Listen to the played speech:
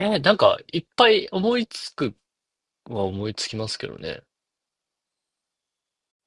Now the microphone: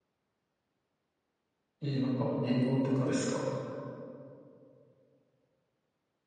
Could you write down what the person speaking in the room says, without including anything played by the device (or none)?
えー、なんか英語とかですか